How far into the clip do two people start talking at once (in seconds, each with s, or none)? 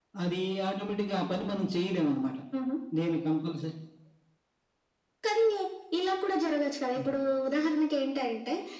none